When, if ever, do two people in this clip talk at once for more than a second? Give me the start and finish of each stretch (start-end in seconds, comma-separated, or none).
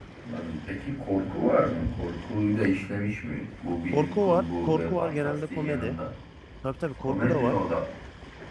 3.9-6.0